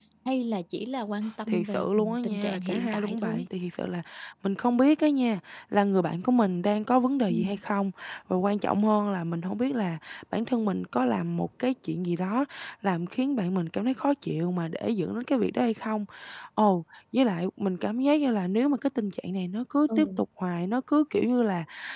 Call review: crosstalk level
present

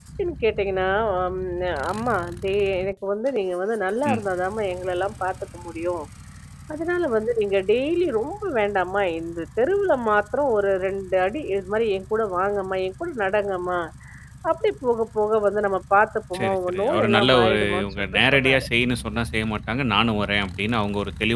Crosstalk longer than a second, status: present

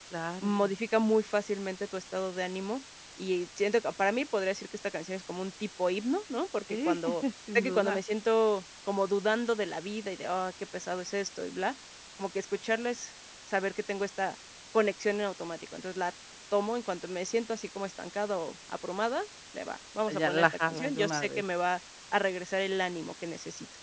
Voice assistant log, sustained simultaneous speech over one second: present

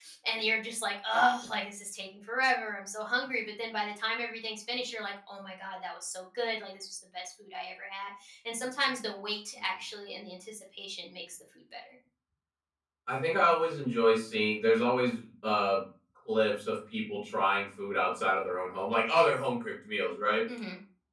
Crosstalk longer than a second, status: none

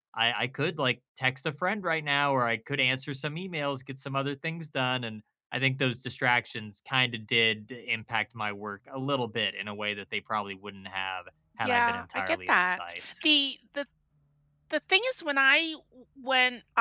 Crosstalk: present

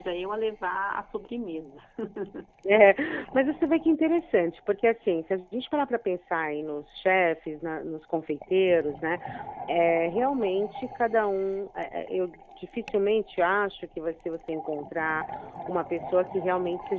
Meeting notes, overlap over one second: none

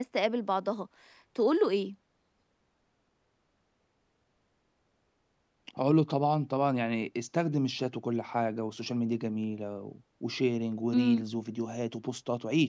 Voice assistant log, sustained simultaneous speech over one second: none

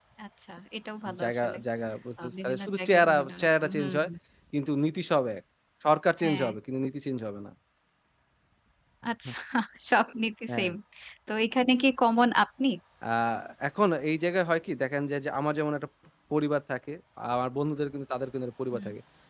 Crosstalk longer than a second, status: present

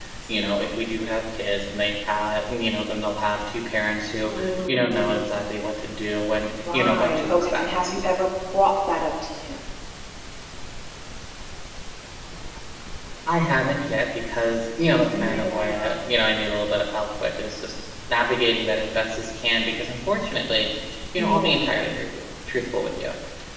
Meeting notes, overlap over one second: present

